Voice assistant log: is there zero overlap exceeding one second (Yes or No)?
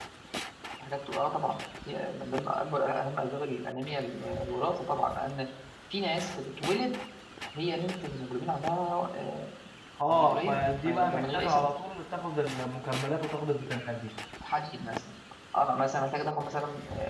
No